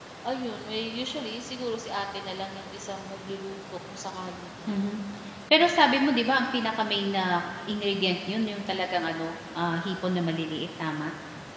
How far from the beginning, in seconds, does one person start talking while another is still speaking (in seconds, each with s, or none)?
none